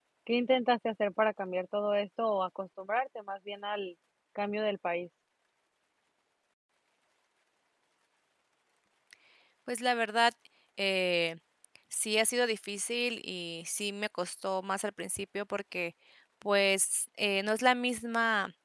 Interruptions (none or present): none